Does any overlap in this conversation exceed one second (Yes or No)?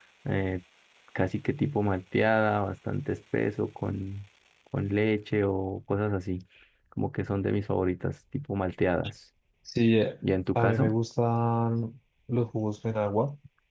No